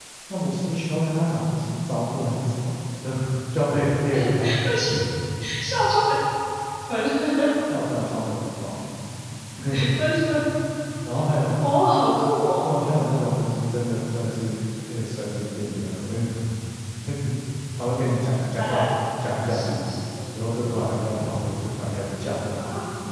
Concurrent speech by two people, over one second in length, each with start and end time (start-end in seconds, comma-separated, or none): none